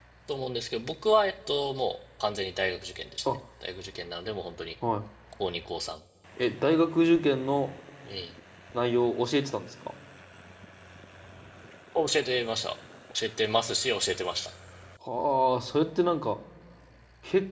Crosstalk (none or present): none